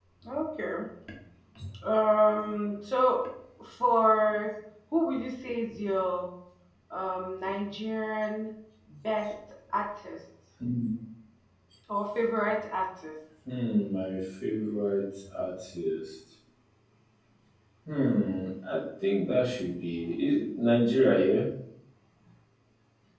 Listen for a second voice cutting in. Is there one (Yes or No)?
No